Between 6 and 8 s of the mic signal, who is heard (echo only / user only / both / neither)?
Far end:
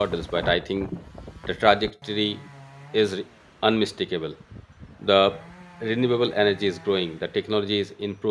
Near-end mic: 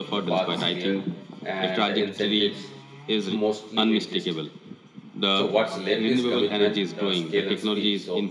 both